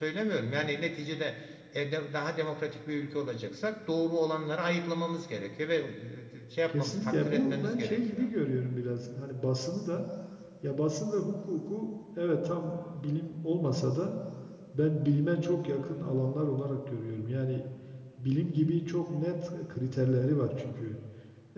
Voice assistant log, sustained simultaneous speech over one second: present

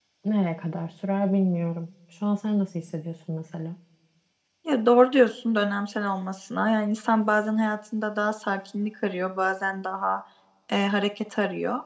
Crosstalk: none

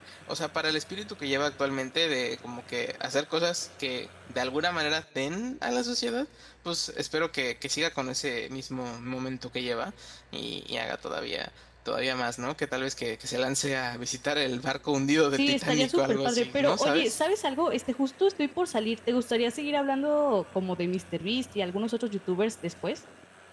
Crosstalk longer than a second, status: present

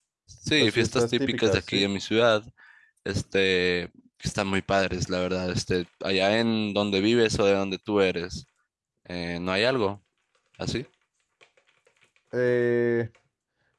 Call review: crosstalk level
present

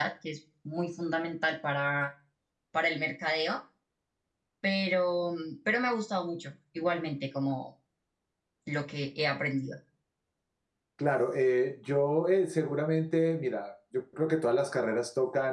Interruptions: none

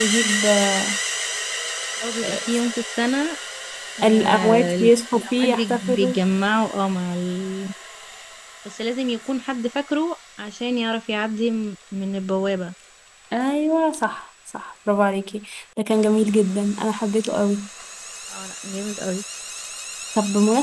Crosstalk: present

